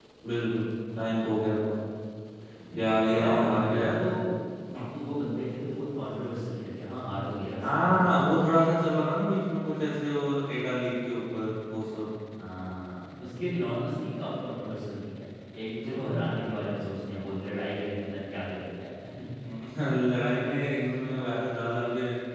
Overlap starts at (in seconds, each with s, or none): 2.8 s